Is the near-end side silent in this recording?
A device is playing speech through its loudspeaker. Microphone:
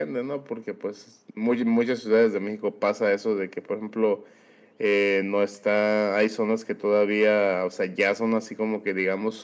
Yes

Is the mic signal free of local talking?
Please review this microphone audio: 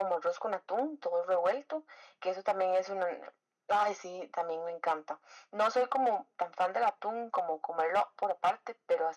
Yes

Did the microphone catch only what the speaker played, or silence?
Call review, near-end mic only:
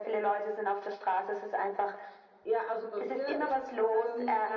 Yes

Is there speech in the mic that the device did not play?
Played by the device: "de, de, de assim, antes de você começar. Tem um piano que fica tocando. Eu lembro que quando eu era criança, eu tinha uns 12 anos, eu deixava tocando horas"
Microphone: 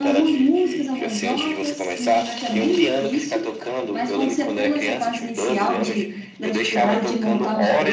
Yes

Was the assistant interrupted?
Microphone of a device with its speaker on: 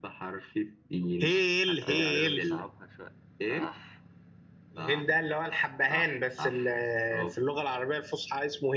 Yes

